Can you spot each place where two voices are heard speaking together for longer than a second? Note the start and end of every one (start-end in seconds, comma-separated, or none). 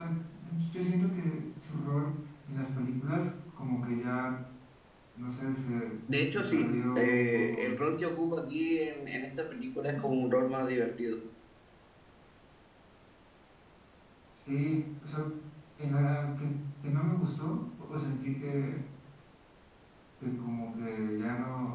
6.3-7.7